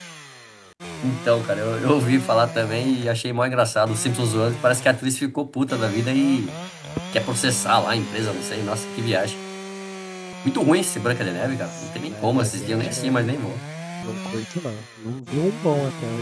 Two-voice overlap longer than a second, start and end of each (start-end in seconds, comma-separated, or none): 11.3-13.5